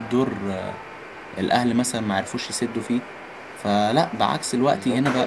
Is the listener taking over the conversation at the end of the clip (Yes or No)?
No